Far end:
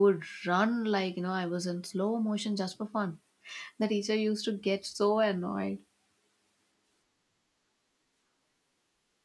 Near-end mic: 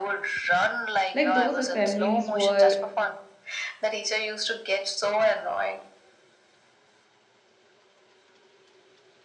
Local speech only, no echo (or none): Like those assemblies were